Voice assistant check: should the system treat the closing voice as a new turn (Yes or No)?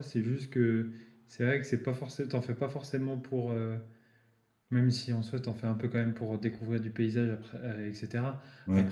No